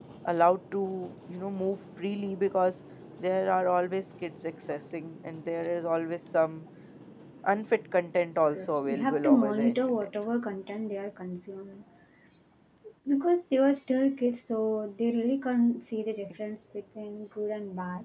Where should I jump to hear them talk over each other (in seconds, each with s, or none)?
8.4 s